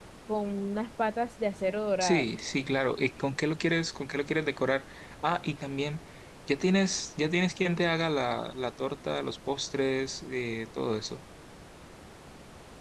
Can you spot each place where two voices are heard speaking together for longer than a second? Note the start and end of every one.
none

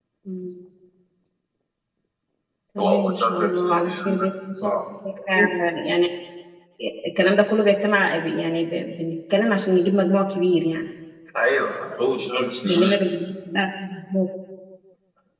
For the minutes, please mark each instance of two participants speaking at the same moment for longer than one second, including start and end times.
2.8-4.2

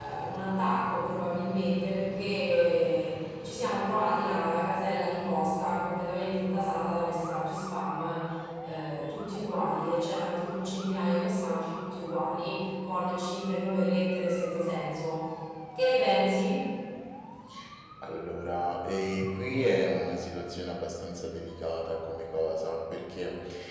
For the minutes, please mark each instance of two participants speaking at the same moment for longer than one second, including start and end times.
none

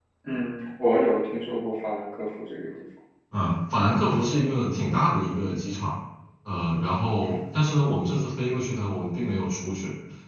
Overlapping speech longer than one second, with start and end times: none

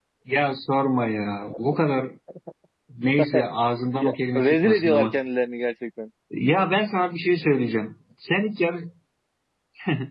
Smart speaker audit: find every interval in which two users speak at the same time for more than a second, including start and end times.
3.9-5.2

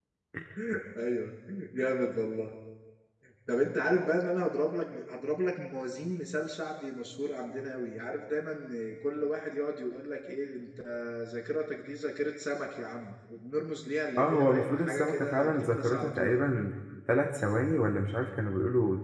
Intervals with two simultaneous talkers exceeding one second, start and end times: 14.2-16.4

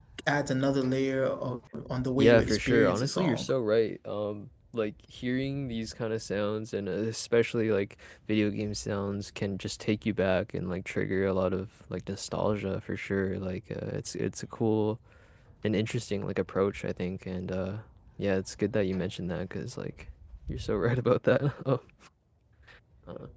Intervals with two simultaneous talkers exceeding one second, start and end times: 2.2-3.5

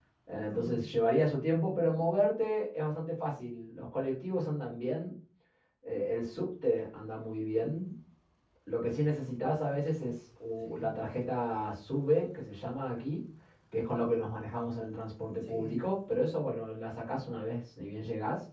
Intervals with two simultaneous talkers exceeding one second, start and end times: none

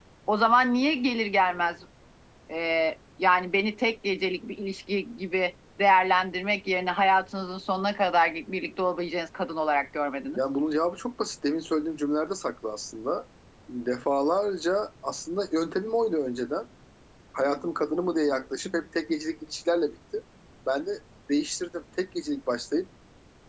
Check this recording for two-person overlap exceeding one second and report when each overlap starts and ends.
none

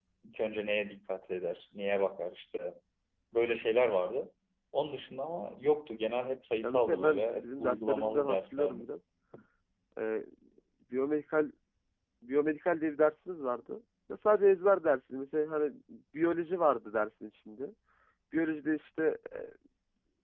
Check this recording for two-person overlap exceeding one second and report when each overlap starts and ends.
6.6-8.8

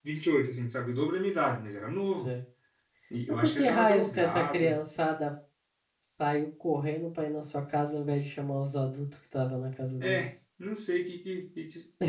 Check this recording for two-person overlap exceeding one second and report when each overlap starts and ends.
3.4-4.8

